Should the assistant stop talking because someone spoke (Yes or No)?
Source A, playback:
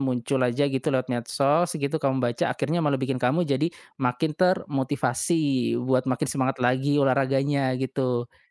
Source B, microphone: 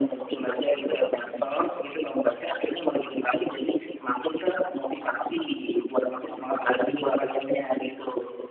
Yes